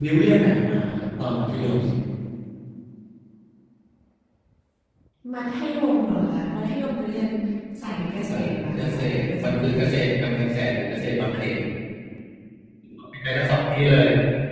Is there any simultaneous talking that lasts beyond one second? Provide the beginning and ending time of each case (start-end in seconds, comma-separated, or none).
8.3-9.9